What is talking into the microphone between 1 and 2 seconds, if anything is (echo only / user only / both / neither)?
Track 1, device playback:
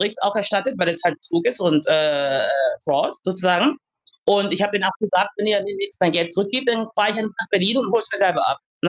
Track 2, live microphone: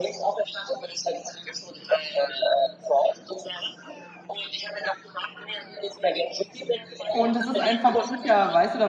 echo only